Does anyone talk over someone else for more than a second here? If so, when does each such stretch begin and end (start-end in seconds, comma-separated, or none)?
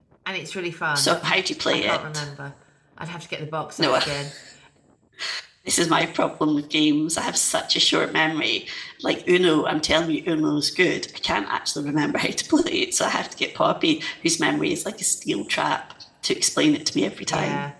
none